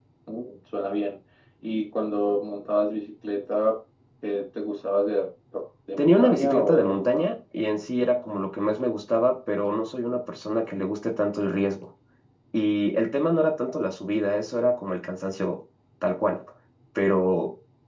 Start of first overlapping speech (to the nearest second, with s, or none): 6 s